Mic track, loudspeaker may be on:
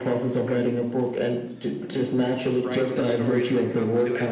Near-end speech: present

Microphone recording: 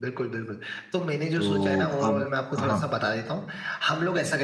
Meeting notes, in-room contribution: present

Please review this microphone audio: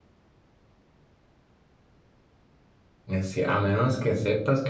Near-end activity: present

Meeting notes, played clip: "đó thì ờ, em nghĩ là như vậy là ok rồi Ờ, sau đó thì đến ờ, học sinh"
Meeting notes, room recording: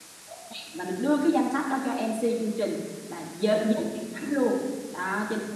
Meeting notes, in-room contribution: present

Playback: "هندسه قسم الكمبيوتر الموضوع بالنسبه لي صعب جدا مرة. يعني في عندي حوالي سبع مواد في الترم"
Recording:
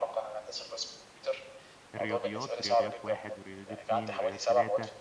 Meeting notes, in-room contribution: present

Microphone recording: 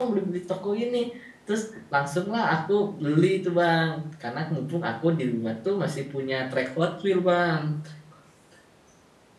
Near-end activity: present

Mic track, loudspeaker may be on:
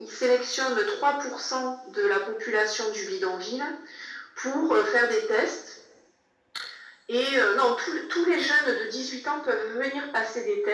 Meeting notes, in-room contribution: none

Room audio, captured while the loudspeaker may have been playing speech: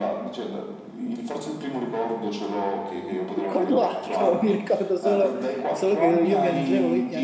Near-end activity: present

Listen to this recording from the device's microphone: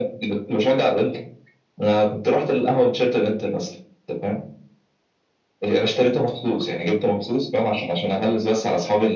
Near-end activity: none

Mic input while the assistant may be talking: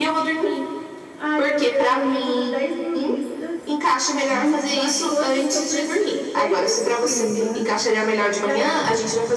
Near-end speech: none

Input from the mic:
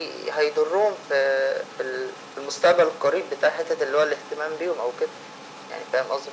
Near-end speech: none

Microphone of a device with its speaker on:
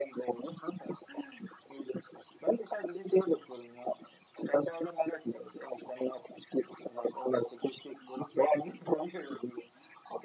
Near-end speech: none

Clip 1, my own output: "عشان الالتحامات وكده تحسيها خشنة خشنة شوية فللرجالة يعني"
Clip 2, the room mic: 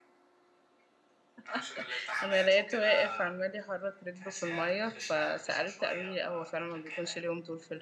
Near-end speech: present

